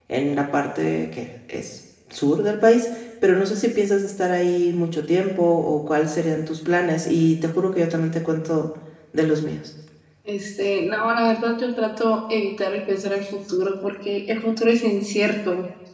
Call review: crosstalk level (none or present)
none